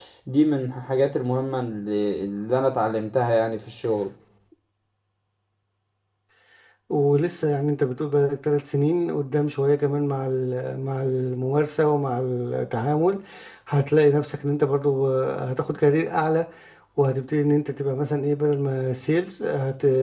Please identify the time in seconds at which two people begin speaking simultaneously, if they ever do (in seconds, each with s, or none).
none